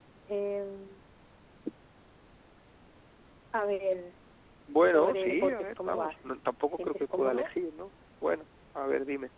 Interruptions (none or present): present